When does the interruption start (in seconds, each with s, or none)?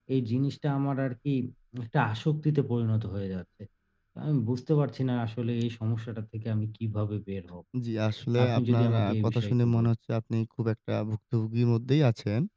8.4 s